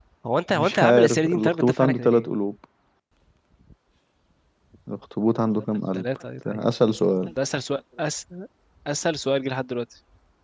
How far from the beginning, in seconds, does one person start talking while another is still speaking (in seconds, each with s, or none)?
0.5 s